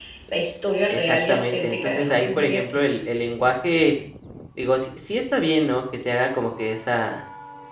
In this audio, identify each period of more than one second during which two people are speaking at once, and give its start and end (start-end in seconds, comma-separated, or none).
0.9-2.8